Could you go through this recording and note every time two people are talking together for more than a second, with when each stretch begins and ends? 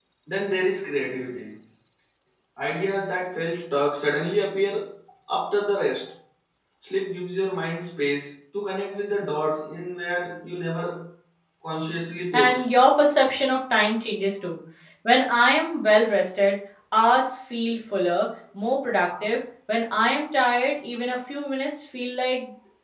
none

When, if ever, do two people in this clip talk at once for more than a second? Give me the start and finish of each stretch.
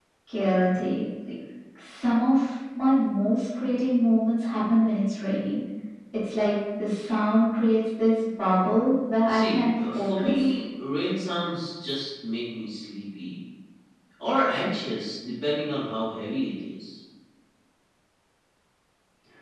9.3-10.5

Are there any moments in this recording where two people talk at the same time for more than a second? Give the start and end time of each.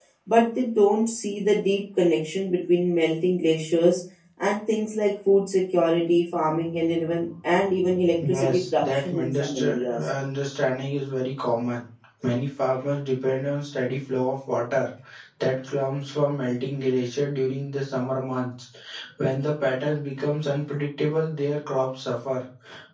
8.2-10.0

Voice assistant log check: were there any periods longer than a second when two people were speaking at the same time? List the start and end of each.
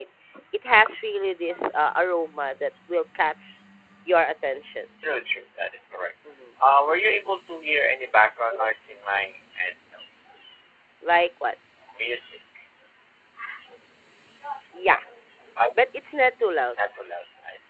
none

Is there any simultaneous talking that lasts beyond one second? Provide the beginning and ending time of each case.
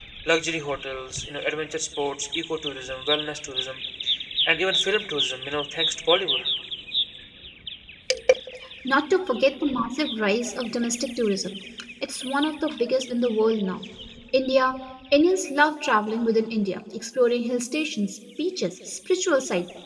none

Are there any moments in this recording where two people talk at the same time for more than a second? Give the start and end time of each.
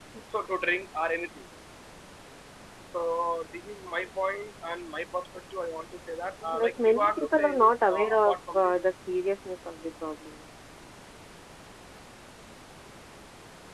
6.4-8.8

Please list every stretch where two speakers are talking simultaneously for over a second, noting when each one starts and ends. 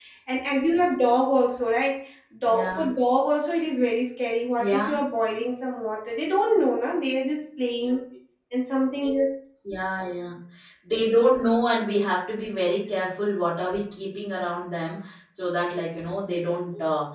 none

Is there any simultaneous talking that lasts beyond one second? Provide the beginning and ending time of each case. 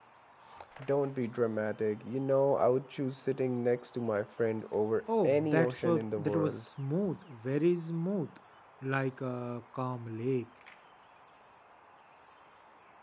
5.2-6.6

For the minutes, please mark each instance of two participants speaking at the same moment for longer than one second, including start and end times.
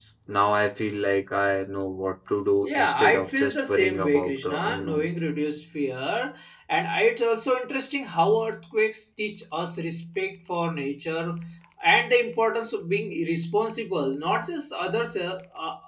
2.6-5.1

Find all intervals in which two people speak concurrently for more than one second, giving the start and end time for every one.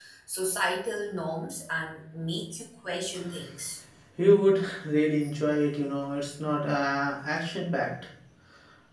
none

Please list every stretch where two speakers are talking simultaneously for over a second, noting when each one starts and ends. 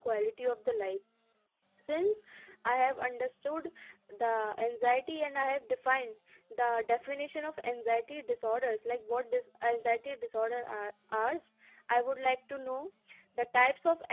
none

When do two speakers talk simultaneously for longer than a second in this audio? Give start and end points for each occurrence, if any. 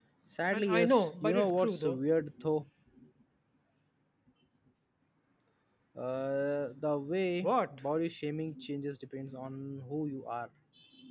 0.5-2.0

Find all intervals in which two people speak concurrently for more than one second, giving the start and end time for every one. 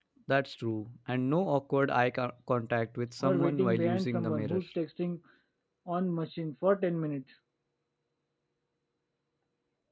3.2-4.6

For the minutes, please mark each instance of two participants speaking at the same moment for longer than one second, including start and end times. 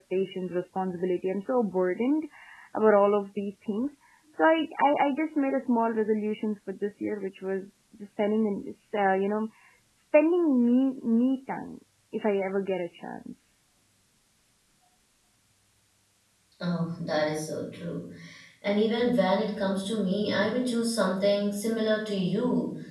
none

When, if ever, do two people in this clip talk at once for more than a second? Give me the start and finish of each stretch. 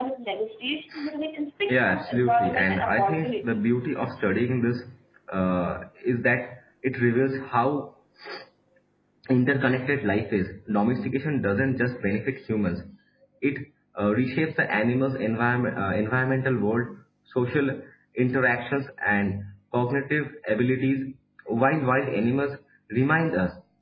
1.7-3.5

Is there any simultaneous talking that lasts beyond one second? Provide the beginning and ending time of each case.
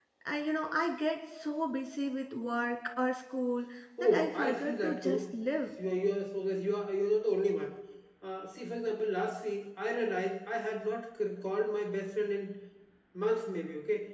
4.0-5.2

